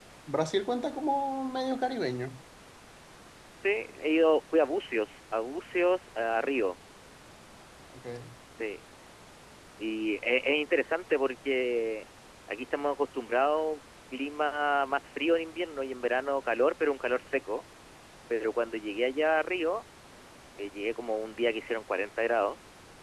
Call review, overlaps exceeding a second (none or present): none